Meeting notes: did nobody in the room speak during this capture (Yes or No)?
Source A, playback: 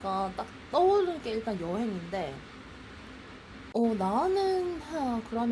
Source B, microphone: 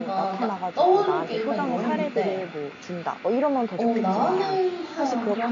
No